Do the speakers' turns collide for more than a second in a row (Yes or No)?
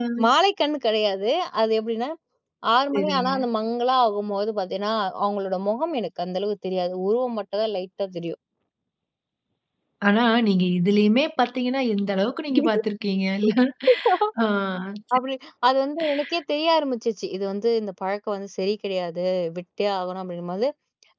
No